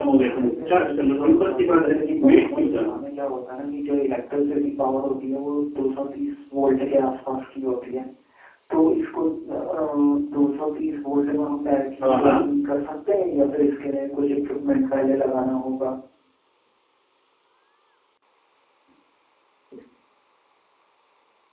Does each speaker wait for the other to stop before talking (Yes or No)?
No